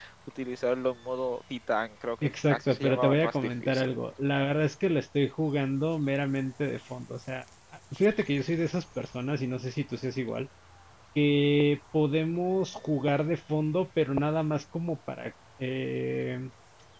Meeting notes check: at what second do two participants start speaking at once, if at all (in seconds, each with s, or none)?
2.5 s